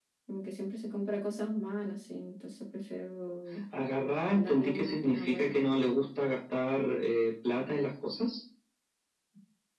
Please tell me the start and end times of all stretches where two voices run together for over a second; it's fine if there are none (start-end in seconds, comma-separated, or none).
4.3-5.6